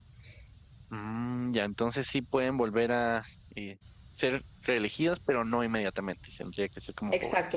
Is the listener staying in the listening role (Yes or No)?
No